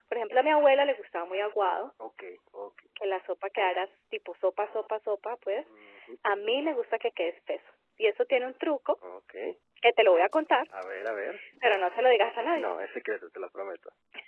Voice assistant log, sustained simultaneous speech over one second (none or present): none